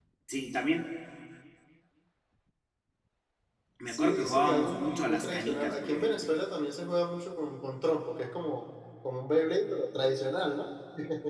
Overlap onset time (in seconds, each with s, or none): 3.9 s